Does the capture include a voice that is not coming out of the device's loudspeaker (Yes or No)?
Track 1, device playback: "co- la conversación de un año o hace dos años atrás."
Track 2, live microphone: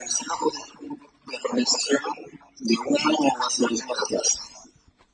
No